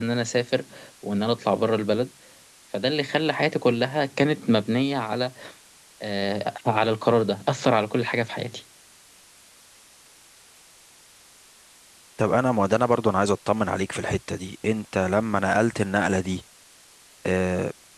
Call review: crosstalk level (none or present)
none